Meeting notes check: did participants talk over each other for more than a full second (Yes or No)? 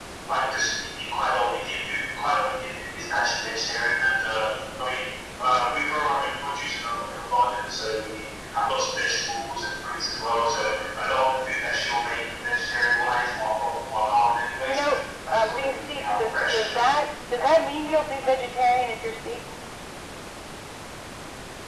Yes